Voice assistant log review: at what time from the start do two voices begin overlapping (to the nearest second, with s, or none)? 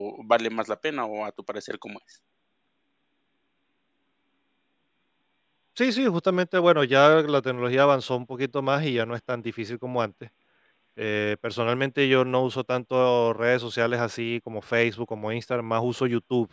none